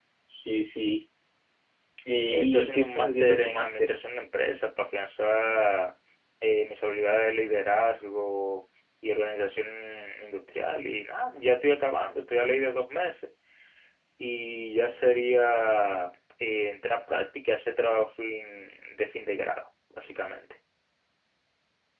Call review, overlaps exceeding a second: present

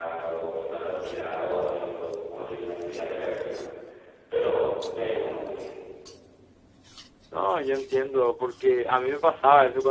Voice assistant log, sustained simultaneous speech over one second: none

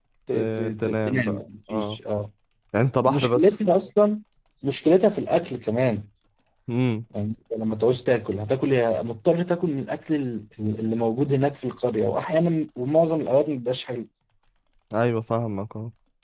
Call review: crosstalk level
present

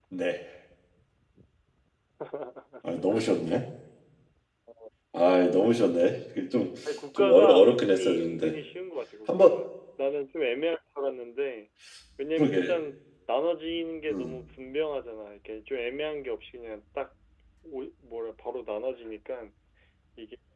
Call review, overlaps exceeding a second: present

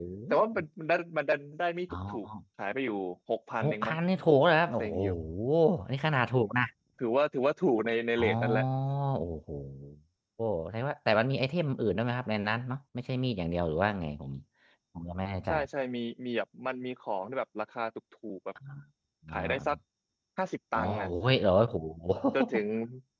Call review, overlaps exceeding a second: none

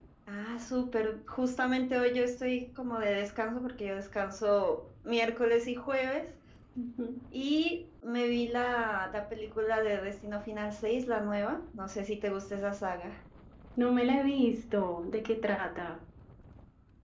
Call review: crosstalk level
none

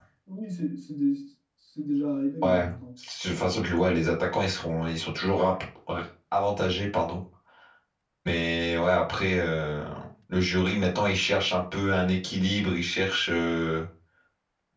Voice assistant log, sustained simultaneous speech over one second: none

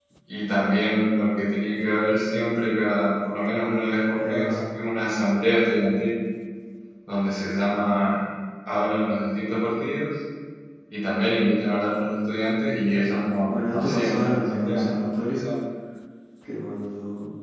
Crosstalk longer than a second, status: present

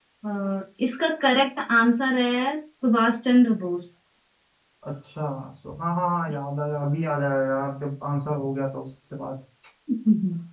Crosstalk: none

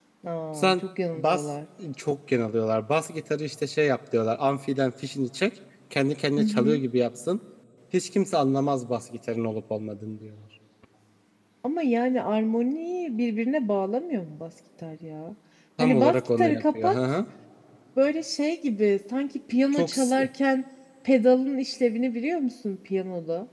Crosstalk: present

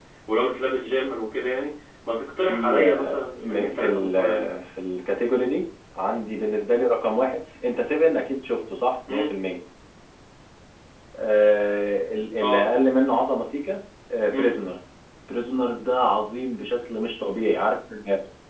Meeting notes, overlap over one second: present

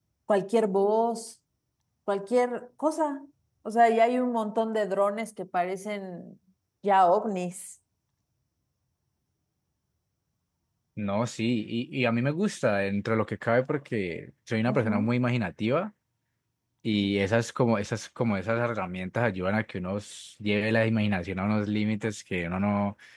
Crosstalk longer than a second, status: none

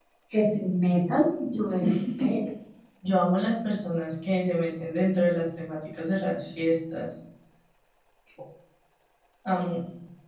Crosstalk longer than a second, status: none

